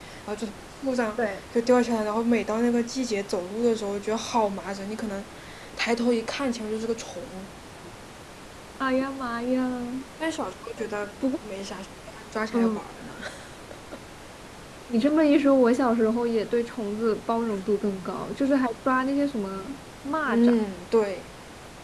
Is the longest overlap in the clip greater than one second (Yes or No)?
No